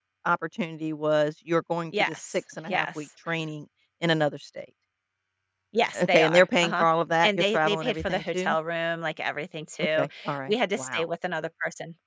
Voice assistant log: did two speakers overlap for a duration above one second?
Yes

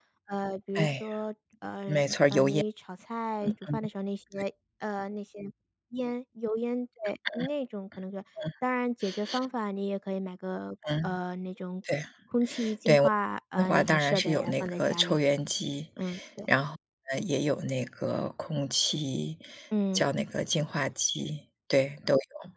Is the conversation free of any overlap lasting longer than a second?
No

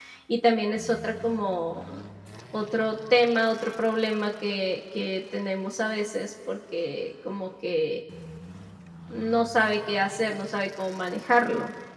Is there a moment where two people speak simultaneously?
No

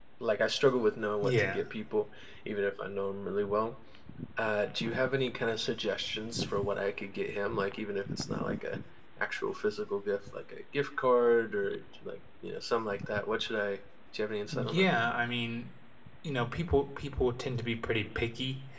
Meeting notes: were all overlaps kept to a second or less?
Yes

